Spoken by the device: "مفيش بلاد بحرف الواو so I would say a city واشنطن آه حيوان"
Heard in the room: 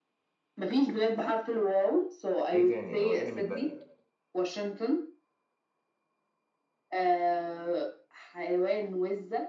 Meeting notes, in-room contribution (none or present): present